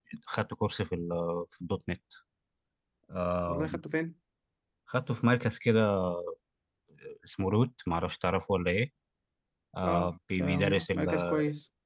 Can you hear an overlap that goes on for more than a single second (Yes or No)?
Yes